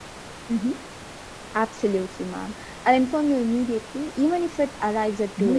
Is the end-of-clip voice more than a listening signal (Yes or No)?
Yes